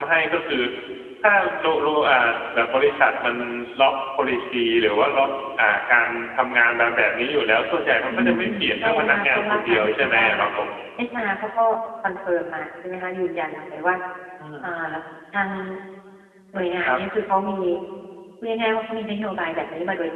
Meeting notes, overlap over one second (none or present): present